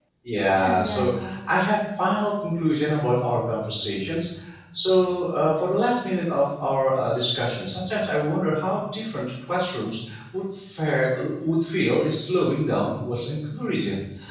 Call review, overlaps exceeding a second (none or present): present